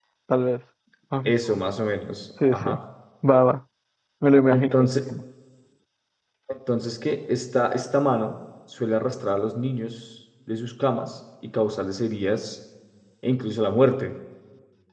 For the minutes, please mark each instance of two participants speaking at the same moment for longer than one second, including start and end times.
none

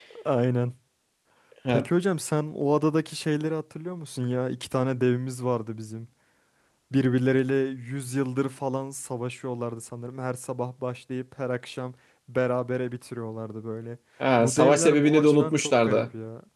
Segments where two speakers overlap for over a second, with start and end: 14.4-16.0

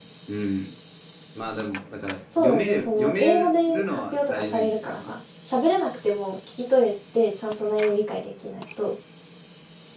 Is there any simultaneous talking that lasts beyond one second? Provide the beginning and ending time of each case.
2.4-5.1

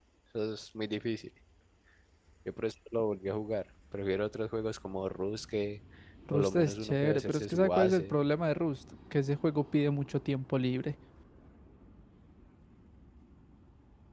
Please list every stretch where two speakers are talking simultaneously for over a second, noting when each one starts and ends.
6.3-8.2

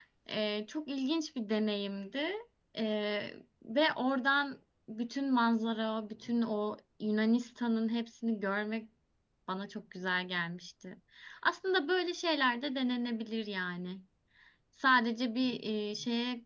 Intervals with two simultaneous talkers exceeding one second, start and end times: none

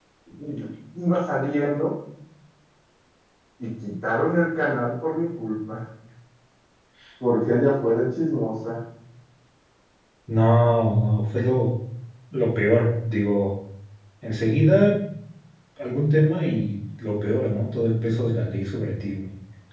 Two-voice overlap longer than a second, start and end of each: none

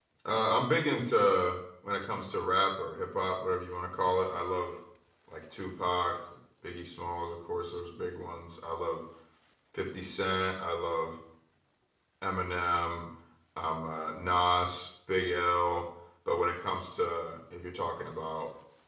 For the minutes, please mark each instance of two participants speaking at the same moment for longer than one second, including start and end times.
none

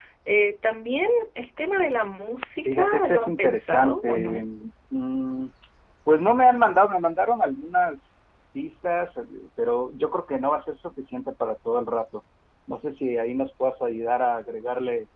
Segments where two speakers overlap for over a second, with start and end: 2.6-4.4

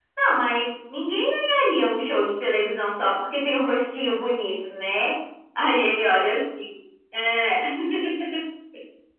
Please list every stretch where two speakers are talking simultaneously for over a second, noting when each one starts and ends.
none

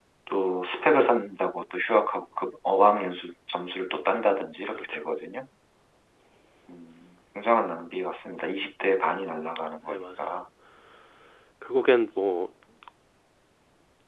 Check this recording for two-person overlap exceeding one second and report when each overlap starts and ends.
none

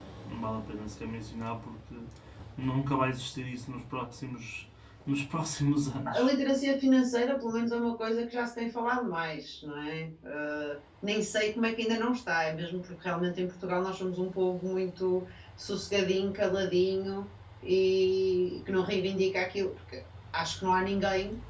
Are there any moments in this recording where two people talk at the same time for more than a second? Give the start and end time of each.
none

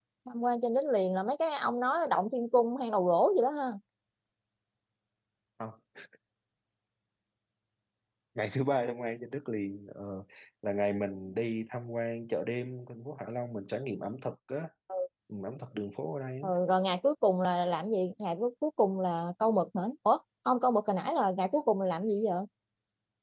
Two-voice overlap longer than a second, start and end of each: none

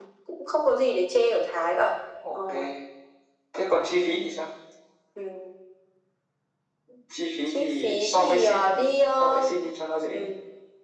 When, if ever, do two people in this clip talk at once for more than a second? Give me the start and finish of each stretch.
7.5-8.8

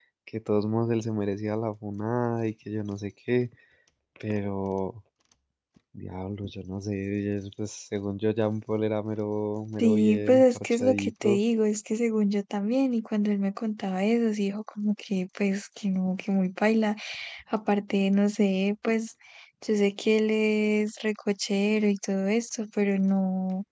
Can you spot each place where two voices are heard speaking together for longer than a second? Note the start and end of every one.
9.8-11.4

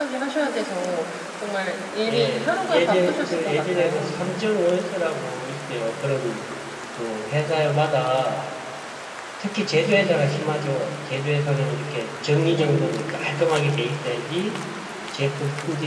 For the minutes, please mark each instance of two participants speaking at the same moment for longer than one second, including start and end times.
2.1-4.2

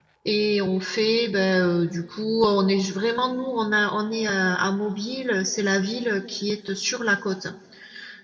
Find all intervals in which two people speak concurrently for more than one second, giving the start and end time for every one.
none

